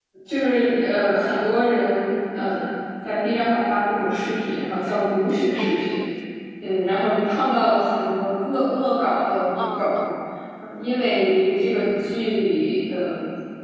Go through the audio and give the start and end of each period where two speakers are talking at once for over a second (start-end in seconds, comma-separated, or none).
none